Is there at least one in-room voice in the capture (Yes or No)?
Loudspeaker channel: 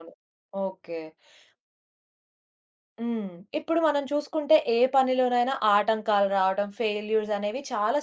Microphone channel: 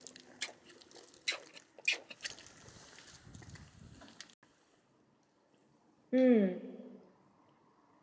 Yes